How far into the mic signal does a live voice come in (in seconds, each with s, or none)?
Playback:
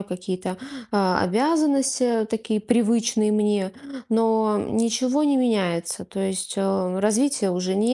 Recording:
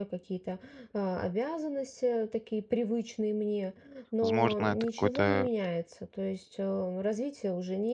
4.2 s